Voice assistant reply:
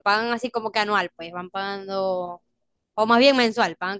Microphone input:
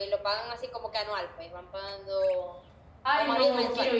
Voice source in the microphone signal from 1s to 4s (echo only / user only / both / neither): both